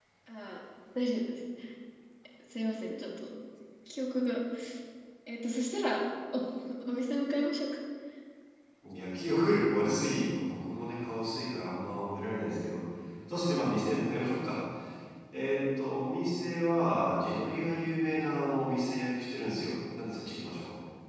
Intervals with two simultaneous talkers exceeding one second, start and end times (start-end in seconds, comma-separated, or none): none